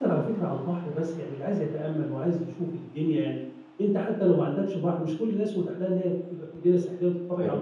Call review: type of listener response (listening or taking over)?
listening